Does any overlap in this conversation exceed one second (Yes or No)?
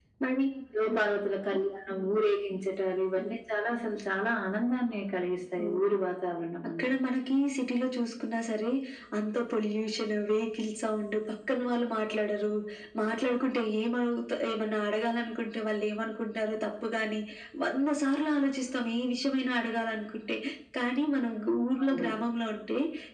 No